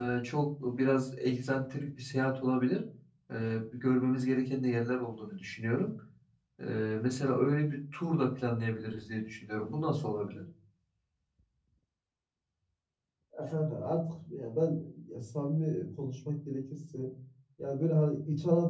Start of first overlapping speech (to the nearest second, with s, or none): none